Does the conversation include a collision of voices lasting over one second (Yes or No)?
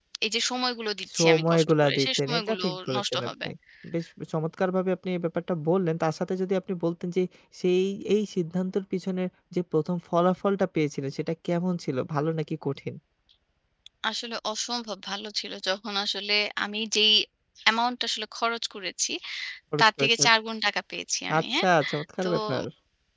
Yes